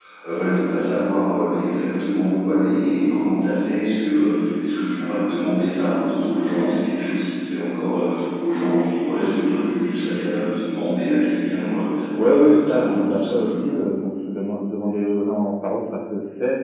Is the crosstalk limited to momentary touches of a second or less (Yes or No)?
No